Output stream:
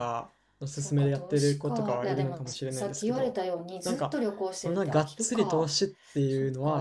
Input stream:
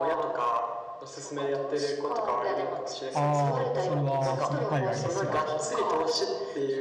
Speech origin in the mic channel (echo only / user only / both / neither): both